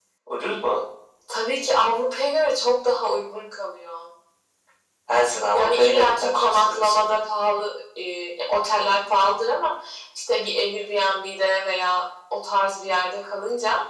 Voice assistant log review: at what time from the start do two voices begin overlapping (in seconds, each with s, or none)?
5.5 s